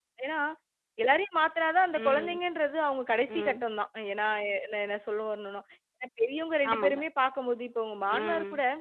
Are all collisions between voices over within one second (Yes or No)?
Yes